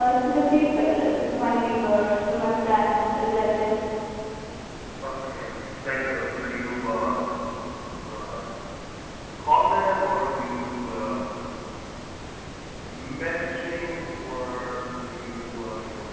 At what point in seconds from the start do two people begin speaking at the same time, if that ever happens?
none

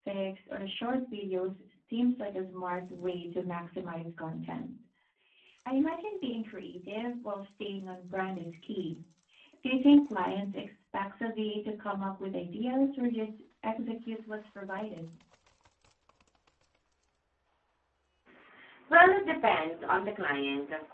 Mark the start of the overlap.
none

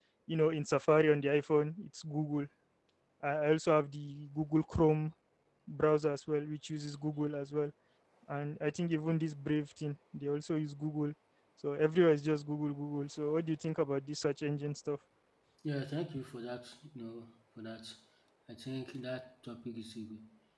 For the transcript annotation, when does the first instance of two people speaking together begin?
none

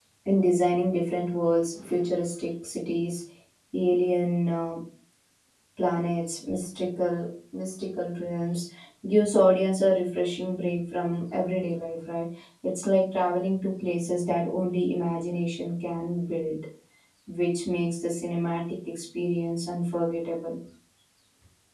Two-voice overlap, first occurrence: none

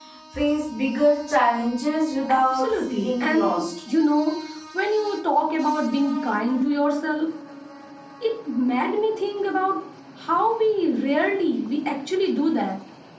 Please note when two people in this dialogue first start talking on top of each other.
2.3 s

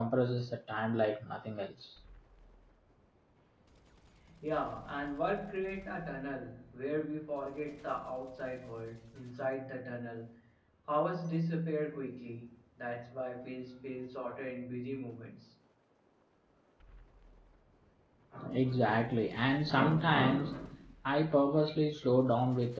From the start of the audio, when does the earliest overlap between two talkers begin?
none

